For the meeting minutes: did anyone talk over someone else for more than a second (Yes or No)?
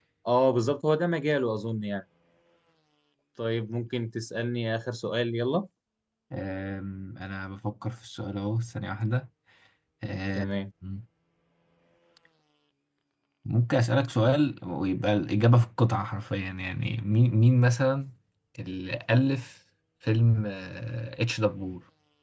No